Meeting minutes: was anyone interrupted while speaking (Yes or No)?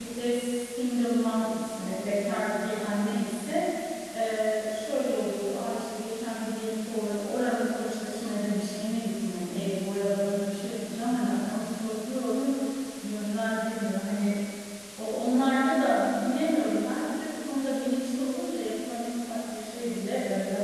No